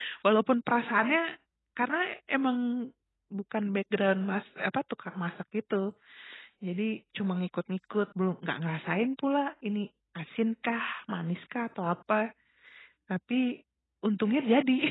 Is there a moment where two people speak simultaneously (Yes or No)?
No